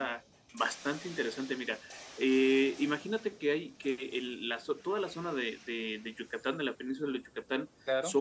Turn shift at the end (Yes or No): No